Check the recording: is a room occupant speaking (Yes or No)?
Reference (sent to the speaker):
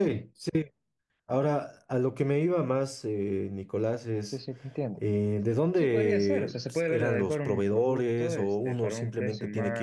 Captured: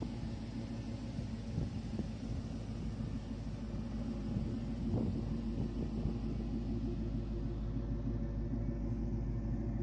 No